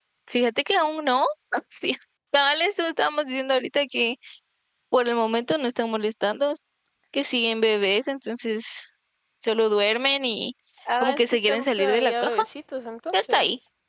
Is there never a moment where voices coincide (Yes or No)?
No